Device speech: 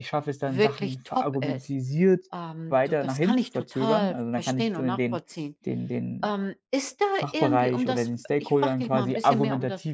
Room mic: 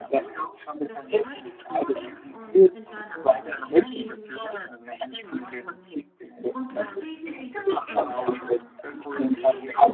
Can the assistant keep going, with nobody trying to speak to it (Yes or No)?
No